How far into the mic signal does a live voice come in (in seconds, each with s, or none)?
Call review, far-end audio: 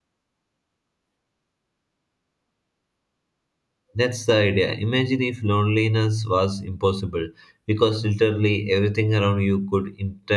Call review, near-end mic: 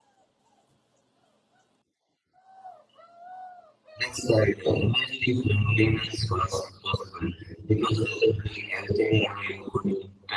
none